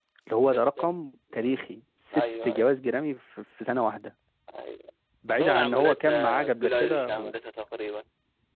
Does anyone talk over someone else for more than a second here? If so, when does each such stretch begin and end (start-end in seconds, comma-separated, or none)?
5.3-7.3